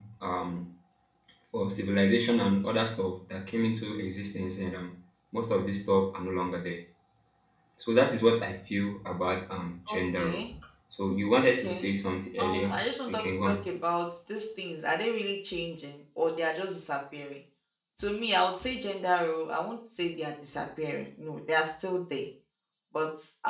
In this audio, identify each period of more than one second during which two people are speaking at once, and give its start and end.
12.4-13.6

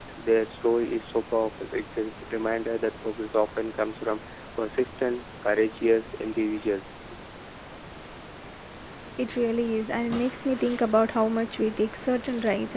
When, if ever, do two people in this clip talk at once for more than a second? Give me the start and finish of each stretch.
none

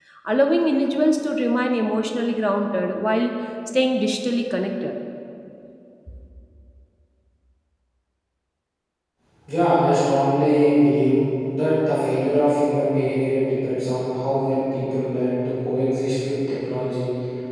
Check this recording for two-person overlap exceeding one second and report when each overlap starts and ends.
none

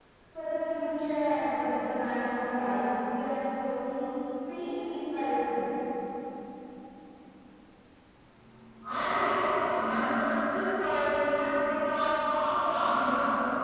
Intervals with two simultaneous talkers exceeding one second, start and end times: none

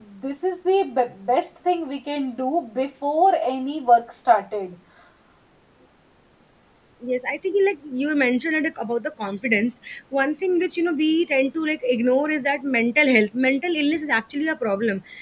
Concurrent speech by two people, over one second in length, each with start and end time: none

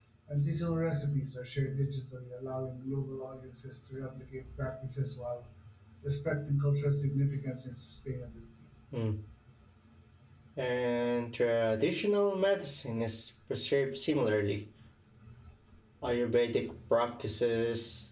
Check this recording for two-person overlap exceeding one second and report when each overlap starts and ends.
none

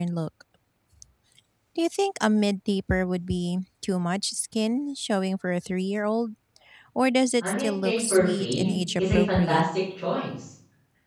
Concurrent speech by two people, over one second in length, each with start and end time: 7.4-9.6

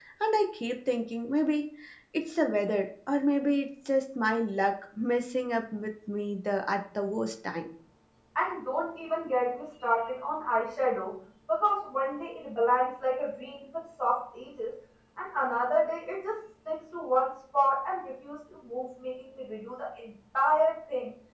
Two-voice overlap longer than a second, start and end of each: none

